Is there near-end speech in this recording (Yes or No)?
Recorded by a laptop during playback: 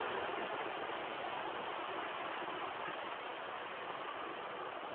No